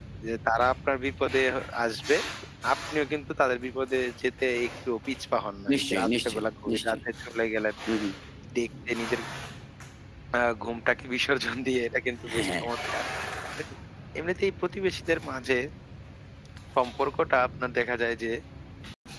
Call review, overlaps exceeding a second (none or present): present